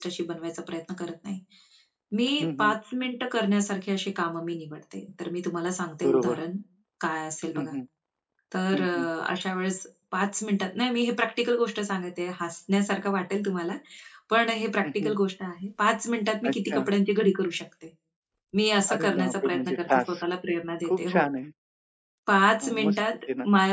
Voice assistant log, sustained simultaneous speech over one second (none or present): present